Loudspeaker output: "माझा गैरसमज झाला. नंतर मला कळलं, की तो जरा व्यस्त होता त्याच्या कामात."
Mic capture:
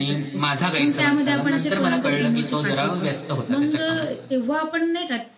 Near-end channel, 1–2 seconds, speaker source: both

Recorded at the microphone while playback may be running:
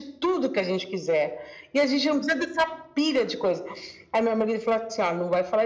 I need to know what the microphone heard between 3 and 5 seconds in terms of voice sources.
echo only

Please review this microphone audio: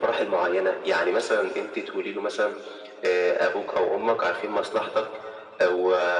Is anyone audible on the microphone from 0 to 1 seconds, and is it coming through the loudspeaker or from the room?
echo only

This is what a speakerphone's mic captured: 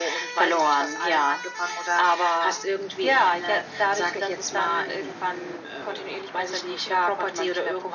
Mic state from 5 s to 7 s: echo only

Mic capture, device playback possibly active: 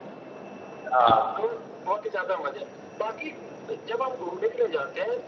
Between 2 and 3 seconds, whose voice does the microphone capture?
echo only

